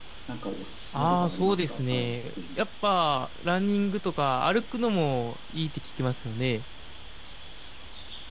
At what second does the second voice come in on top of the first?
0.9 s

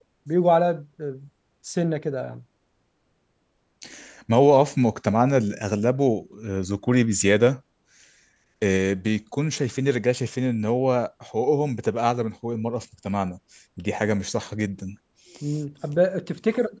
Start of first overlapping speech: none

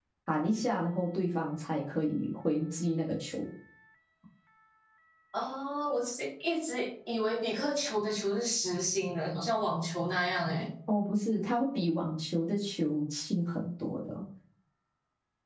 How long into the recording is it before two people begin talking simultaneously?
none

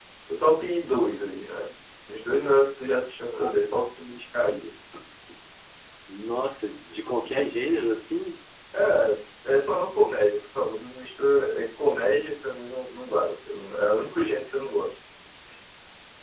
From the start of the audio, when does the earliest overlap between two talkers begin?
none

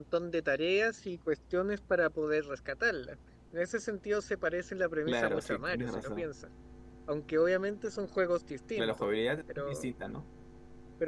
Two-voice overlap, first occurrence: 5.1 s

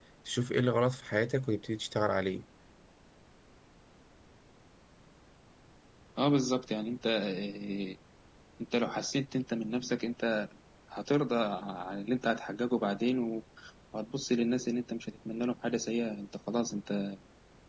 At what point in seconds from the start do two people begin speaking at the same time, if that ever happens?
none

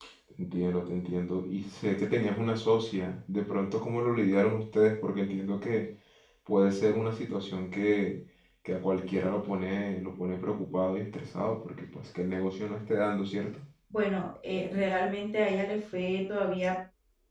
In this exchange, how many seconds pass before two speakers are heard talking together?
none

